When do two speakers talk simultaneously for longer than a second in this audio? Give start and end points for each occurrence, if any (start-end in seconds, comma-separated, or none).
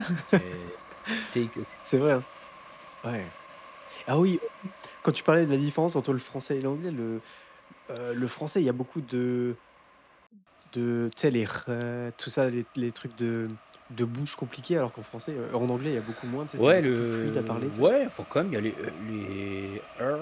16.6-17.9